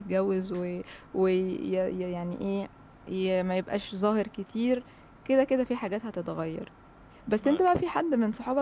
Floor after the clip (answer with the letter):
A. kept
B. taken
A